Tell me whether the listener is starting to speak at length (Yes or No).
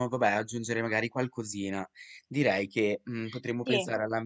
No